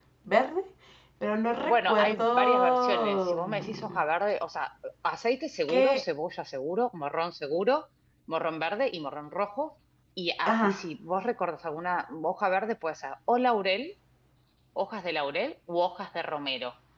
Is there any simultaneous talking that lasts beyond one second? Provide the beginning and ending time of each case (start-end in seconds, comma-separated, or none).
1.7-4.0